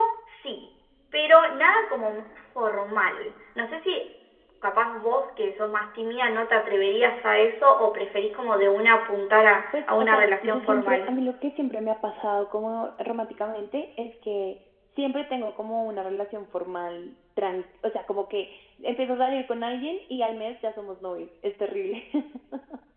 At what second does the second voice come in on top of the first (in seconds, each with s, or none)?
9.7 s